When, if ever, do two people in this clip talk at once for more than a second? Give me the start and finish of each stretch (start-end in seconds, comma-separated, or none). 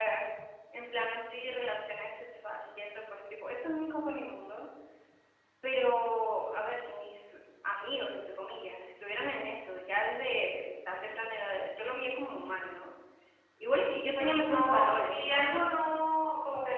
13.9-15.5